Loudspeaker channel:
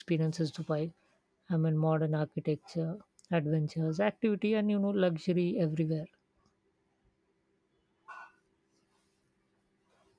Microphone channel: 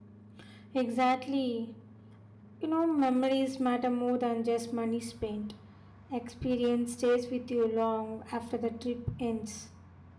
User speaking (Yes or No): Yes